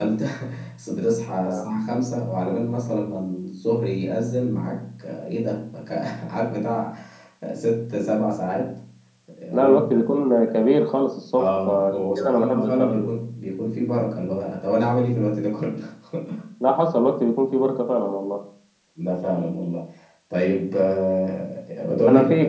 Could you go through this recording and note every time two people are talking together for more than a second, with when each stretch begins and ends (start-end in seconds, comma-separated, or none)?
11.3-13.1